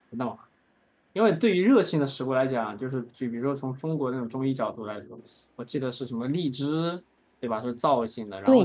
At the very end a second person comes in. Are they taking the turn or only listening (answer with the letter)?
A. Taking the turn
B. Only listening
A